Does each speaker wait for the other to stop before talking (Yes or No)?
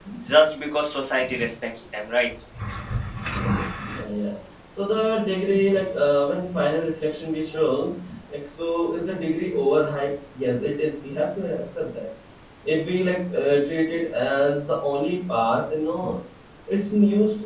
Yes